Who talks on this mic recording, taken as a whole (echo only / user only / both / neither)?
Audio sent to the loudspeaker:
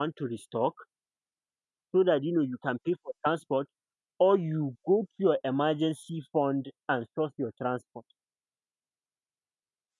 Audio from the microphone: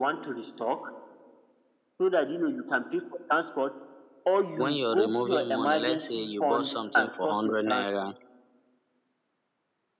both